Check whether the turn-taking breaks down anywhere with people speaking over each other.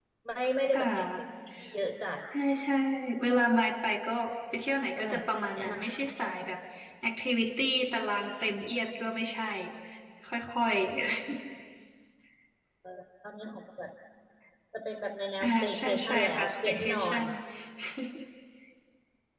Yes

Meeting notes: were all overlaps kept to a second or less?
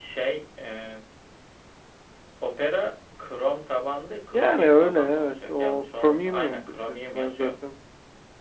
No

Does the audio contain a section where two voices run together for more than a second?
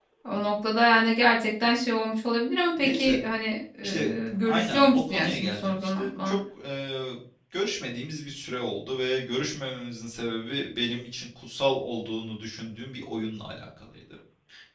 Yes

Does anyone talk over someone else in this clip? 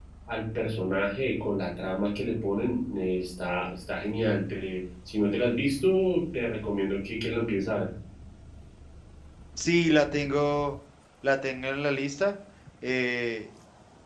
No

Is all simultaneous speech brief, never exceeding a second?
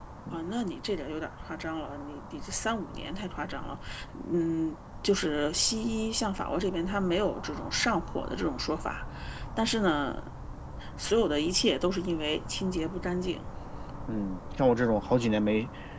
Yes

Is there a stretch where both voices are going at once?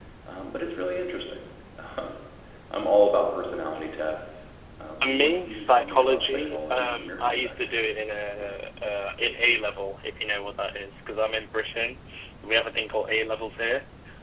Yes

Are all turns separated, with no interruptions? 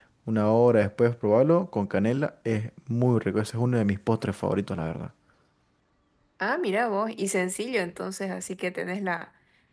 Yes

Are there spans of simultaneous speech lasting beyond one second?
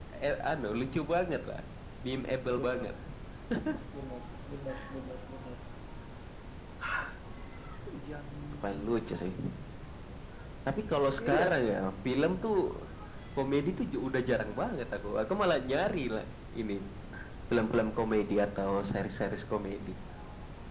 No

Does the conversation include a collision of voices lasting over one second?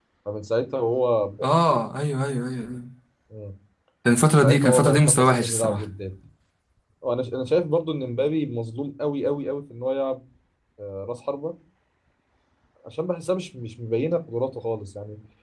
Yes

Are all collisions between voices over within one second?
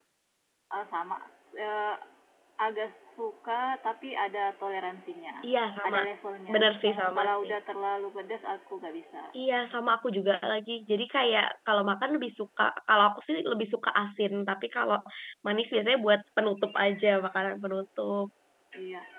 Yes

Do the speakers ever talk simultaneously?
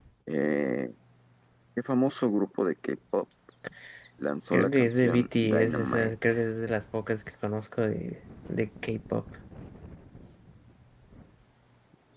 Yes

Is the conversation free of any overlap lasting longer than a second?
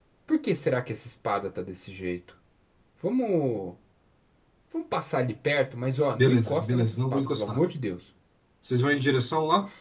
No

